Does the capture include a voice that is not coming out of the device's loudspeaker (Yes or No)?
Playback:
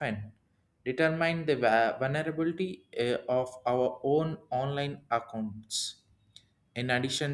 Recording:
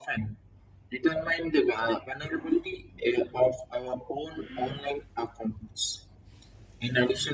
No